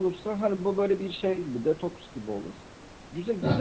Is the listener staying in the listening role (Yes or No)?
Yes